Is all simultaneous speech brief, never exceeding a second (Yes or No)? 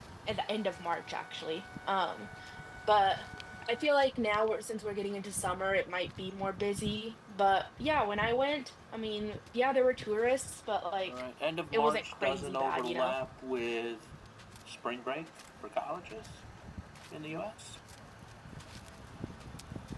No